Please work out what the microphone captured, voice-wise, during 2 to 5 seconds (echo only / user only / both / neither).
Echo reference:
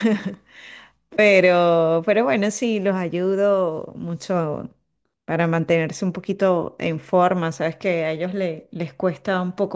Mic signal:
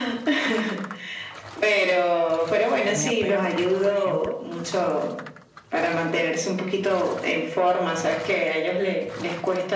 both